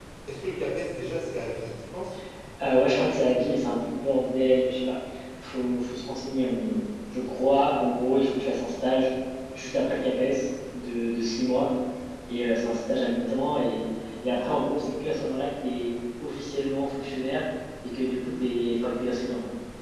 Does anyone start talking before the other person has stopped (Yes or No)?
No